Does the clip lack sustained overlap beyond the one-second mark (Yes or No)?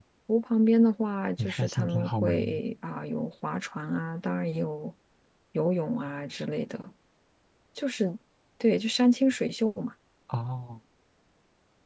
No